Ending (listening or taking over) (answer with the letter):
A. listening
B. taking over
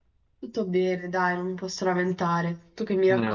B